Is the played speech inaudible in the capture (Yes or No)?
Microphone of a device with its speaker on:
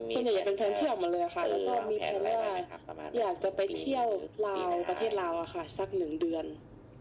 No